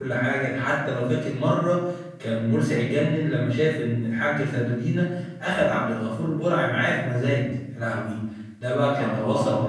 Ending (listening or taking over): listening